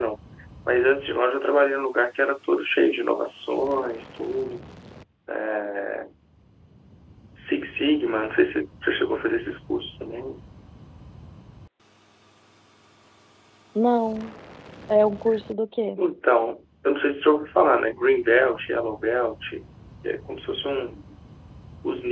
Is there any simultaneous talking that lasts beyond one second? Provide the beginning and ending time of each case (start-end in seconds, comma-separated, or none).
none